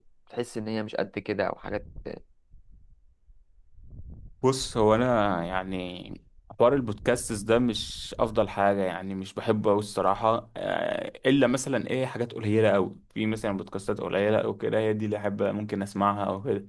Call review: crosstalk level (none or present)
none